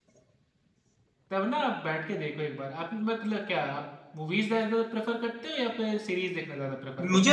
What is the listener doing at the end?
taking over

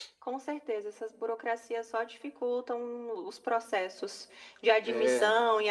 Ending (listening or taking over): listening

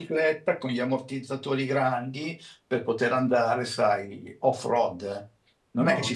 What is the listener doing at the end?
listening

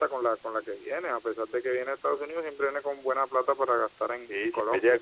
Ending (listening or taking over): taking over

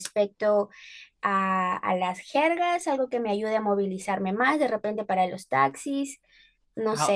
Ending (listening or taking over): taking over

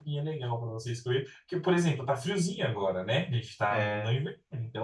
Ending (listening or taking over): listening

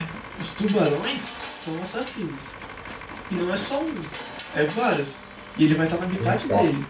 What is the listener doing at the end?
listening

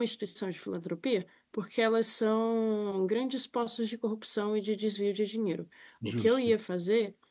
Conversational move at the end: listening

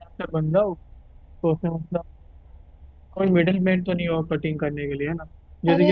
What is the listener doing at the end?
taking over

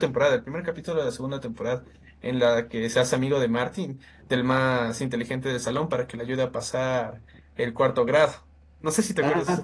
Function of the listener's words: taking over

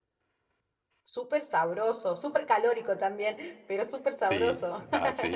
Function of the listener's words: taking over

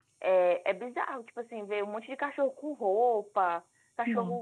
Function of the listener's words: listening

